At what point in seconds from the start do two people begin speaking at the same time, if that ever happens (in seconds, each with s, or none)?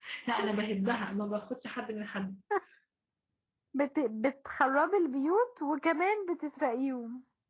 none